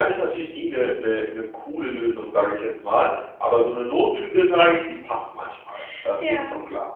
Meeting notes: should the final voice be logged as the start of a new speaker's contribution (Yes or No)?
Yes